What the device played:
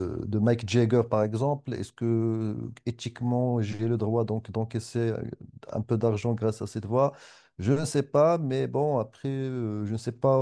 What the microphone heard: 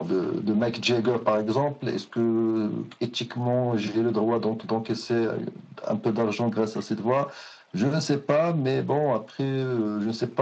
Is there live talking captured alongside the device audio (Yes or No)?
No